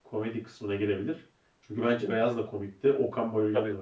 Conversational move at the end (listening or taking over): taking over